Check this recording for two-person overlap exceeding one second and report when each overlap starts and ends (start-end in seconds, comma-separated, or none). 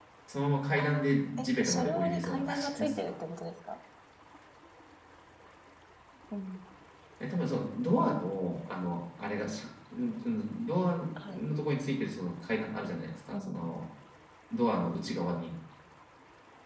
0.8-3.1